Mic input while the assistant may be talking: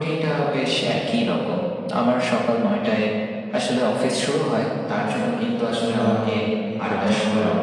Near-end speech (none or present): present